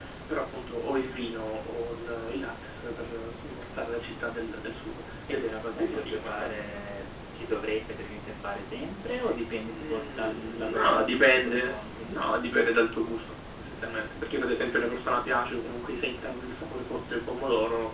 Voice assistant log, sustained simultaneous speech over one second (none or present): present